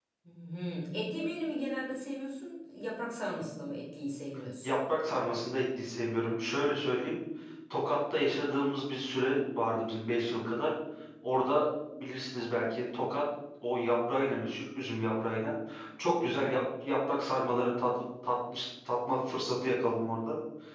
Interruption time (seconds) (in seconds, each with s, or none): none